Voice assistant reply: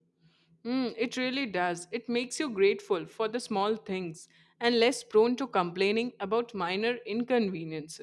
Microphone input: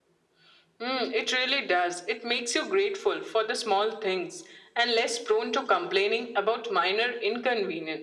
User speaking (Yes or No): No